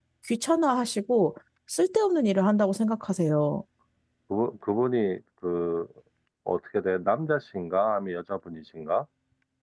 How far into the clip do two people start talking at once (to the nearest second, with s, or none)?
none